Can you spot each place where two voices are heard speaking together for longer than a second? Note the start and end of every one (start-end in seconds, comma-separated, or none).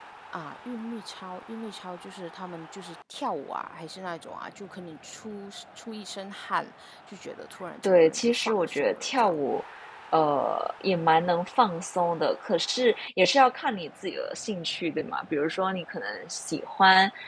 7.8-9.3